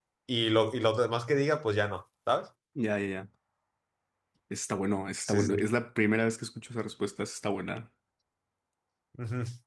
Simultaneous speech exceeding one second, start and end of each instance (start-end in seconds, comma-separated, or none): none